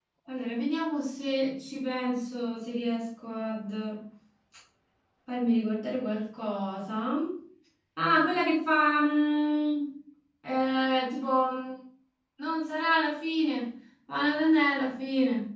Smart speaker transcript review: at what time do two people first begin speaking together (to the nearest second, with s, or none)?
none